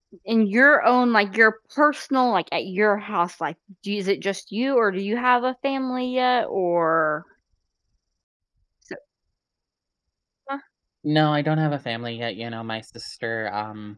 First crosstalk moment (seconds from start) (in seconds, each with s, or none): none